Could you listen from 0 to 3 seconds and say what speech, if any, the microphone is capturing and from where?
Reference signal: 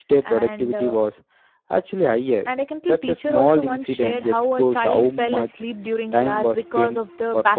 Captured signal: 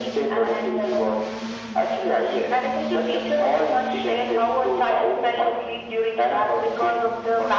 echo only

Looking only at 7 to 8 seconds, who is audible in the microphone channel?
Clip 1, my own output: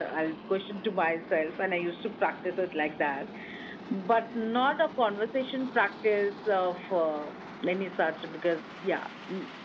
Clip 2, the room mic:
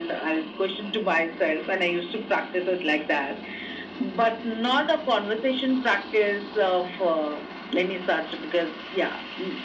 echo only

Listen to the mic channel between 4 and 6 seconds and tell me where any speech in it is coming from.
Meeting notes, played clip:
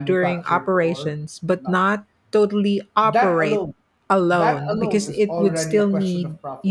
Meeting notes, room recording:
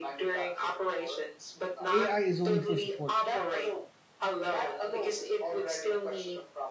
echo only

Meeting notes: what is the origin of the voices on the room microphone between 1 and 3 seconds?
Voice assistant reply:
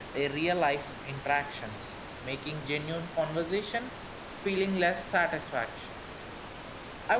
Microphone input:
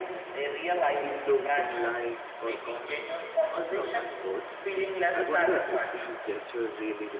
both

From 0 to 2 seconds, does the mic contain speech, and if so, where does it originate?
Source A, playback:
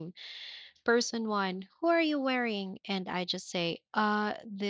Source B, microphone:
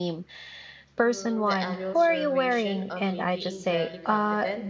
both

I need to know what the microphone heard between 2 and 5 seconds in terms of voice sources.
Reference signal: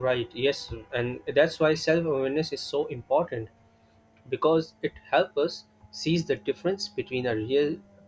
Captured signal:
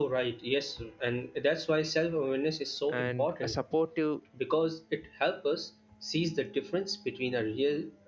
both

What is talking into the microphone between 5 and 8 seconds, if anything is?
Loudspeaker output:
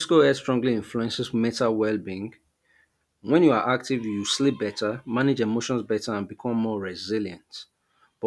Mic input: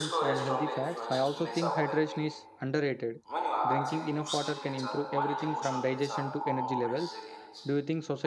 both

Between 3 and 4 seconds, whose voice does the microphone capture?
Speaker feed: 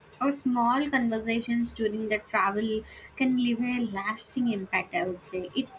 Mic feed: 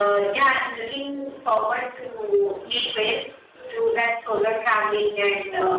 user only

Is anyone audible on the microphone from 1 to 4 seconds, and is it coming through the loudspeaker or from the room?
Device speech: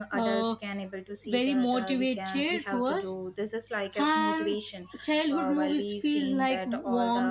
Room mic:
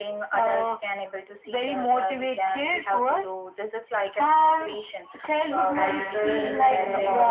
echo only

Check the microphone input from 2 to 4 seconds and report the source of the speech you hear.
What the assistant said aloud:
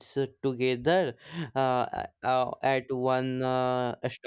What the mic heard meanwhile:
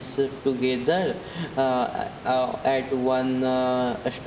echo only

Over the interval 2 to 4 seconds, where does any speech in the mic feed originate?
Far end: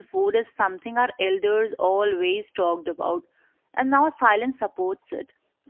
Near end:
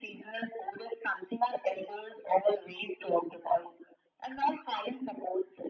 echo only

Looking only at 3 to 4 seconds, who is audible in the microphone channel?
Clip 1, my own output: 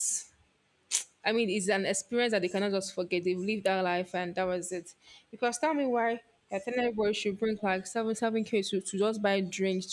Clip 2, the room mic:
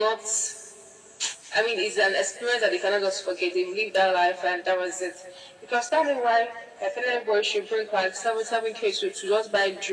echo only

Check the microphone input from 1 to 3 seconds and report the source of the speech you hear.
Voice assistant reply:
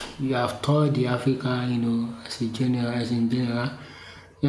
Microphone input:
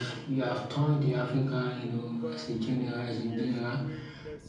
both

